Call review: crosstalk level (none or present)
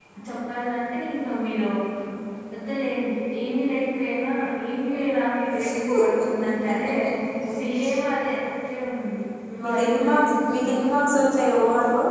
present